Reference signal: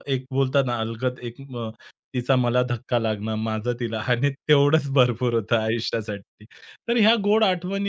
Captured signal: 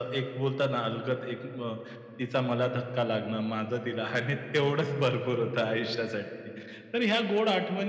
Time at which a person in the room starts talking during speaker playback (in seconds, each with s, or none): none